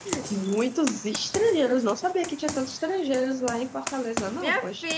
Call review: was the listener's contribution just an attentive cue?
No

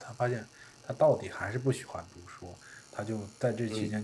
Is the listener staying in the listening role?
Yes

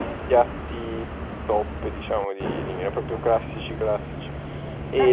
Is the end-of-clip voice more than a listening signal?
Yes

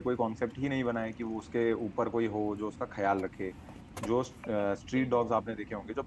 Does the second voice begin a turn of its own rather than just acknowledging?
No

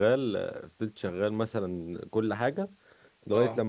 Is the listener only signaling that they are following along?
Yes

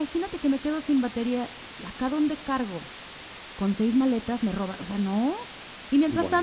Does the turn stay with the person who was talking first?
Yes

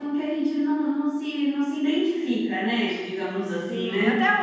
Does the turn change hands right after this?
Yes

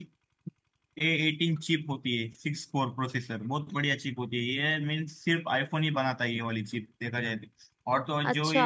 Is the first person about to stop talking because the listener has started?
No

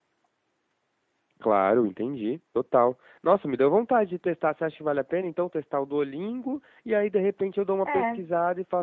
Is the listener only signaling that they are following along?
Yes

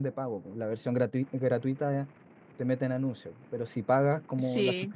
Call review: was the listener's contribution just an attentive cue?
Yes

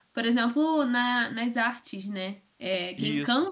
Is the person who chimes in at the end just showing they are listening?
Yes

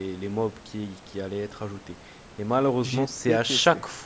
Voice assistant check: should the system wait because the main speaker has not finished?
Yes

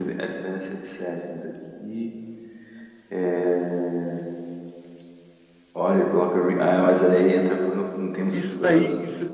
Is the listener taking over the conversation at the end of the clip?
Yes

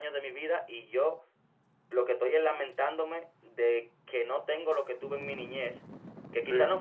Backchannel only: Yes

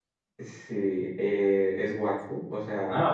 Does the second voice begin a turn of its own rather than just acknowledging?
No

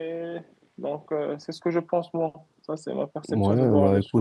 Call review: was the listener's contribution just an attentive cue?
No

